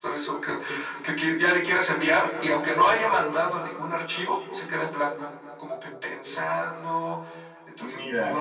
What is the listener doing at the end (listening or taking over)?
taking over